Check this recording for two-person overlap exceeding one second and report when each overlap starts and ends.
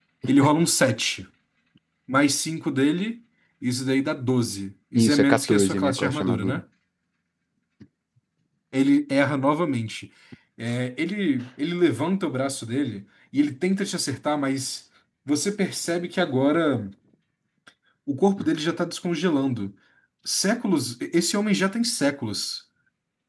5.0-6.6

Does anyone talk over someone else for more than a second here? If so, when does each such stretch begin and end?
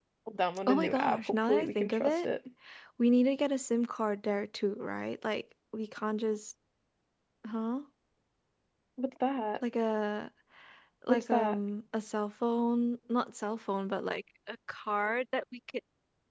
0.7-2.2

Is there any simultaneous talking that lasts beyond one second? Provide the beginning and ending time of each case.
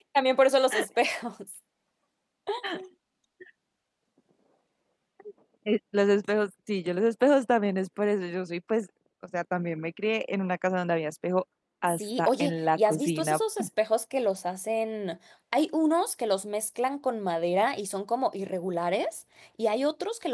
12.0-13.4

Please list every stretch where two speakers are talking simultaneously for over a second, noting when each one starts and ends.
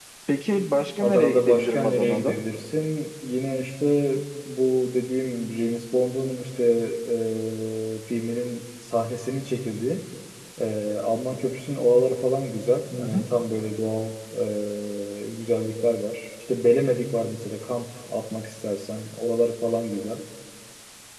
1.0-2.4

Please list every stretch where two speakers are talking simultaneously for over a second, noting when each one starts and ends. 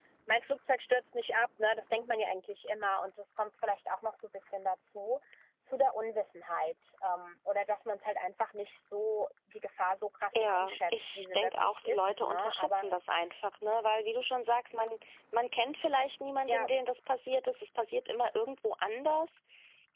10.3-12.8

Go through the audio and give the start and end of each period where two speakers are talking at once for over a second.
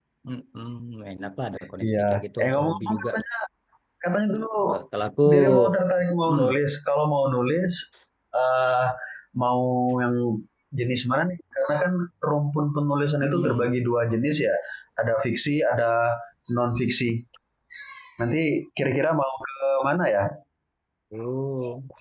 1.8-3.1

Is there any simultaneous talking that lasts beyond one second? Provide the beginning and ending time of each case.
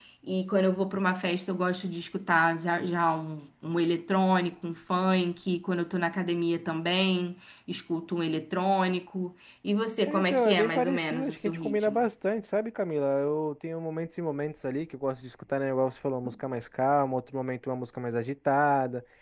10.1-12.1

